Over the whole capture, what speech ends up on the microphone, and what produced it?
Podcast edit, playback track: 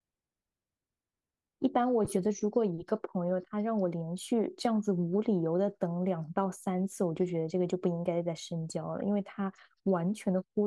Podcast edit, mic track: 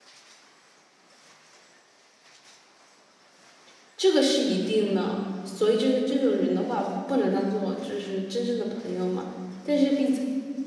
user only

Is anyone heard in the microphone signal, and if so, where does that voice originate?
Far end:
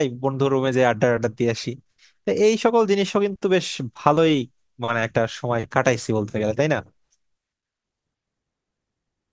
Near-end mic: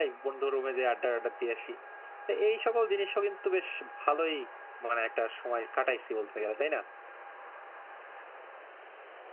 echo only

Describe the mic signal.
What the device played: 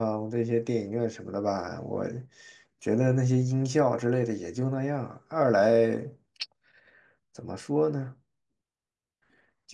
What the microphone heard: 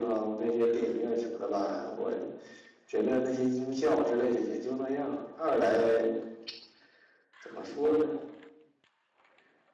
echo only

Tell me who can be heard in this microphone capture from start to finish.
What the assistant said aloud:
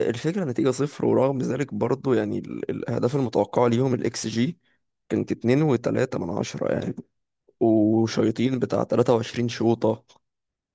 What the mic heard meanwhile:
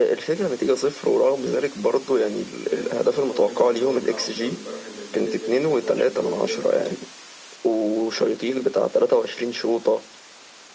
both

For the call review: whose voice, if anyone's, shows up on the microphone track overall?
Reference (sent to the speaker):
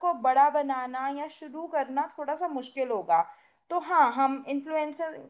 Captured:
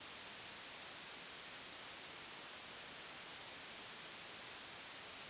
neither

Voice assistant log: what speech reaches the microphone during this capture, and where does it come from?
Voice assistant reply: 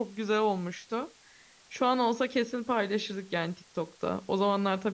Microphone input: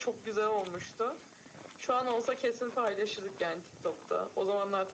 echo only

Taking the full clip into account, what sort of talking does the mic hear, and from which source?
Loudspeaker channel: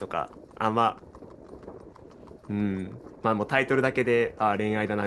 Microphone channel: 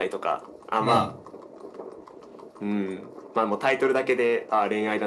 both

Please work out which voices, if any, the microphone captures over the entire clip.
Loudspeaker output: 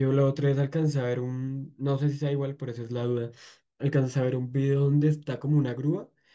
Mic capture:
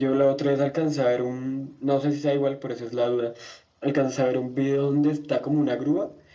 echo only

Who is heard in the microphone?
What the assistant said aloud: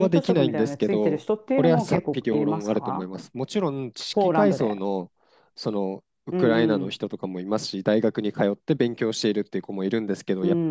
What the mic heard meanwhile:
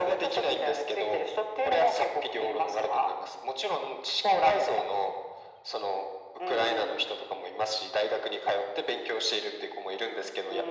echo only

